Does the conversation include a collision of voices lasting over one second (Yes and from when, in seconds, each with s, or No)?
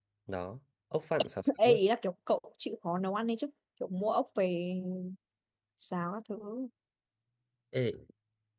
No